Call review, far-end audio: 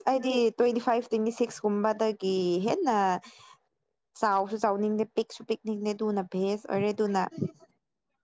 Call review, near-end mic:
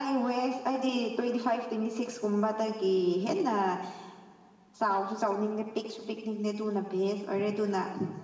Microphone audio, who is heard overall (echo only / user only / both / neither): echo only